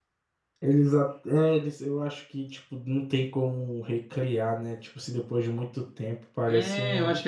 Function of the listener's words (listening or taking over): taking over